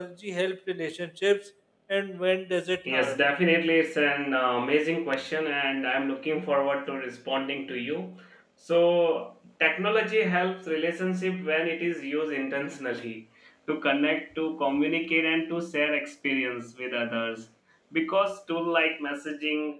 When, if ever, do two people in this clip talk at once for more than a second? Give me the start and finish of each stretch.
none

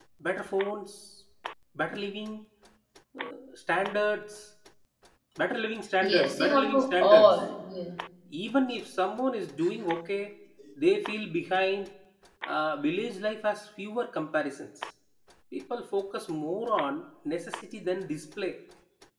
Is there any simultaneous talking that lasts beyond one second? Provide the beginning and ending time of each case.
6.0-7.4

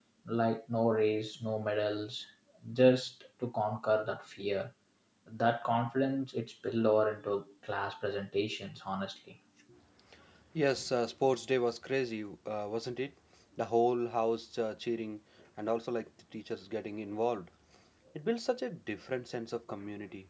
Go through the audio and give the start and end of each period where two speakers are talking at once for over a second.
none

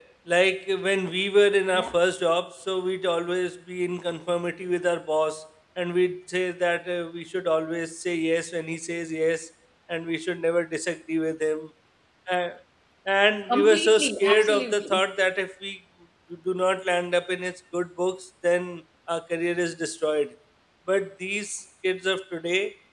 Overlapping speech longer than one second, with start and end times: 13.5-15.0

